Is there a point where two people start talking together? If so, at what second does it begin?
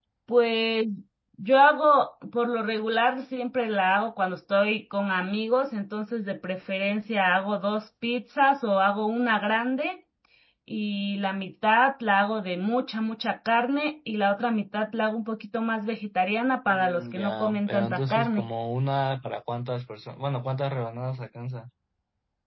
16.7 s

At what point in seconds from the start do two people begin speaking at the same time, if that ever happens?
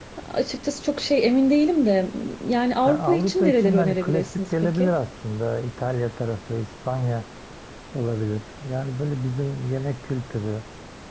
2.9 s

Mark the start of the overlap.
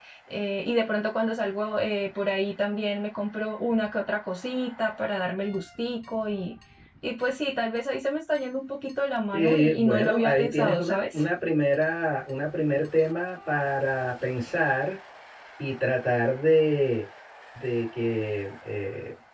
9.3 s

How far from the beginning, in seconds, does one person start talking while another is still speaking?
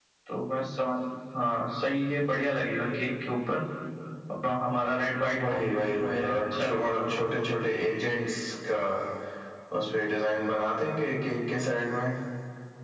5.3 s

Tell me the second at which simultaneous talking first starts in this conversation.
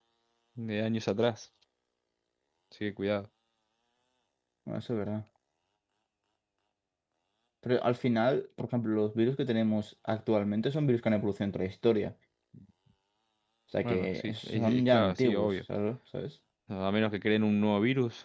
13.8 s

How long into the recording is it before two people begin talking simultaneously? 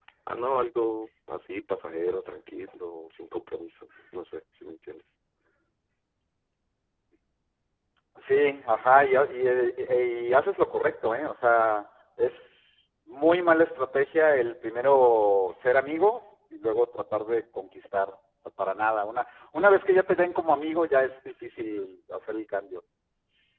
none

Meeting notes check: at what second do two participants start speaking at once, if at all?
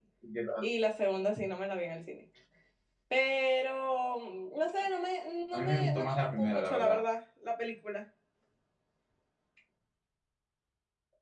5.5 s

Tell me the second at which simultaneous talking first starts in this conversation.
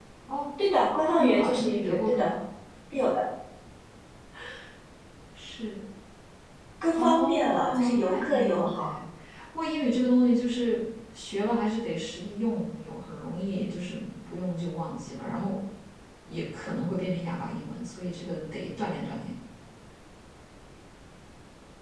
1.0 s

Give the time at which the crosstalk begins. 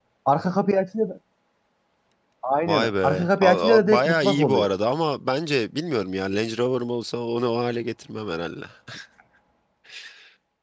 2.7 s

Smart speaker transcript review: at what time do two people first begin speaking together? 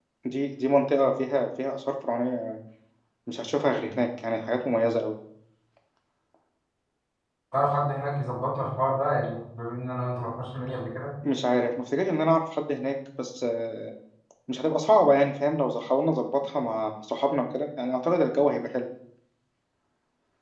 none

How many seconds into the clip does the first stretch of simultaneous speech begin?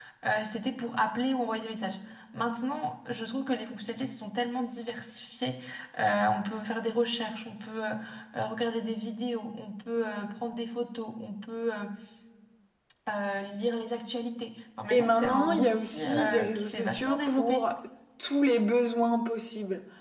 14.9 s

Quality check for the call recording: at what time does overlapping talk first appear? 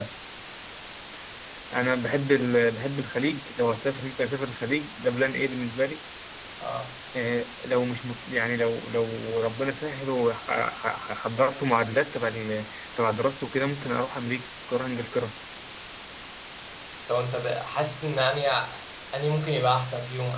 none

